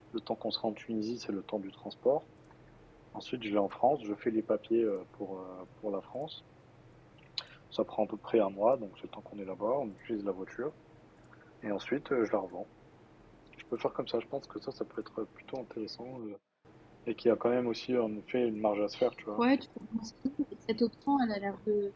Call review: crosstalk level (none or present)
none